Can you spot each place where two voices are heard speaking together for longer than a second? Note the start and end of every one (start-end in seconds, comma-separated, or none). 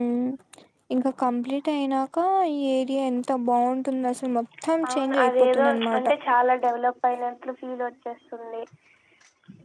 4.9-6.1